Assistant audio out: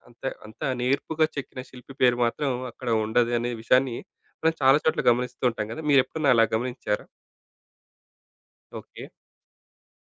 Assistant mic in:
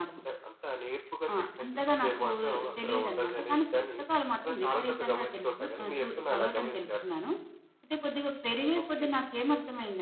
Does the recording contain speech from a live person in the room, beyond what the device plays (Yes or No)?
Yes